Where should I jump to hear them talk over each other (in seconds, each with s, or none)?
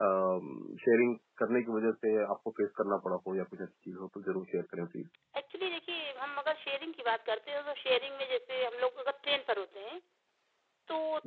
none